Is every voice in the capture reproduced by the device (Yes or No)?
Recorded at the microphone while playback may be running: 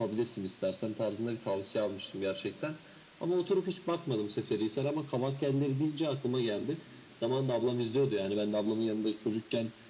Yes